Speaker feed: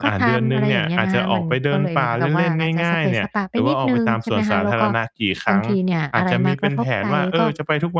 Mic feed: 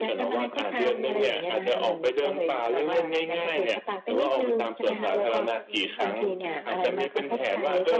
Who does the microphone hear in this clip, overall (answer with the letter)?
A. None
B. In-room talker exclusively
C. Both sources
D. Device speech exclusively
C